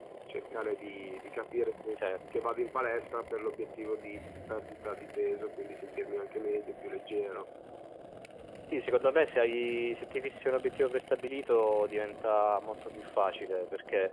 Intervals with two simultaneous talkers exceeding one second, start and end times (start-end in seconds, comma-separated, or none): none